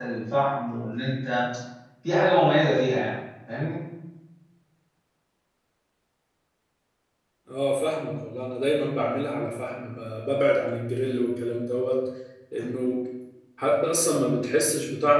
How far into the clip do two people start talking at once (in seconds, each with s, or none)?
none